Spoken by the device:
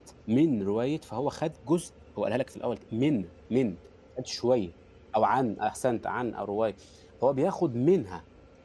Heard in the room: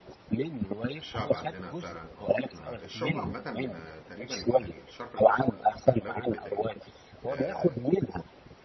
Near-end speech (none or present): present